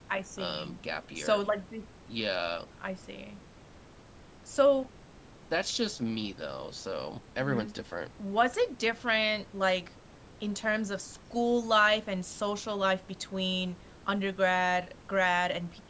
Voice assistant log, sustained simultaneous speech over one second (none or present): none